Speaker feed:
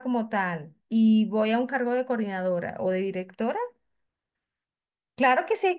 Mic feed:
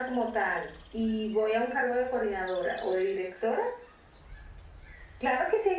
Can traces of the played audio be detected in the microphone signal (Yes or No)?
Yes